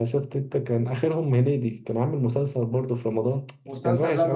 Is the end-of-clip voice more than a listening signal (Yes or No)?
Yes